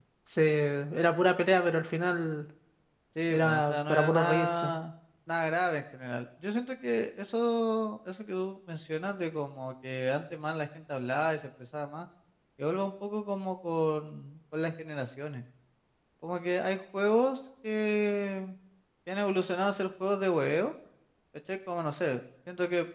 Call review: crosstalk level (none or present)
present